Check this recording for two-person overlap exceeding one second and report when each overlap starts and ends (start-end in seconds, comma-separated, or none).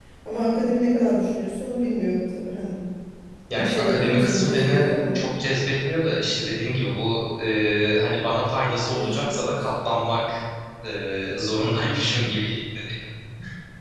3.5-5.2